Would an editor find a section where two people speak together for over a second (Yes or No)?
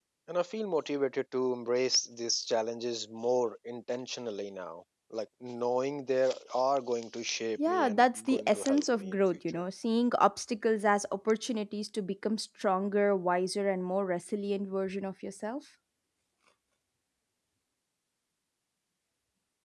Yes